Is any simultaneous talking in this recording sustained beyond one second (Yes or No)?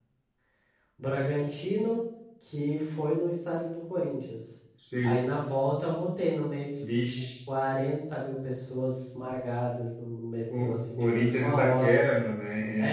Yes